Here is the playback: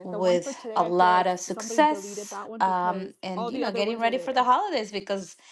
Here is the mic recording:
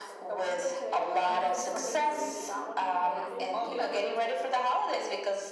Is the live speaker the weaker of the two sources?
Yes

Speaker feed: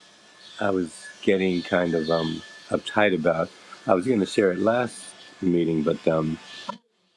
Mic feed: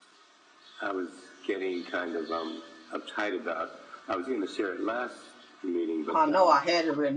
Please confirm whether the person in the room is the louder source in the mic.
Yes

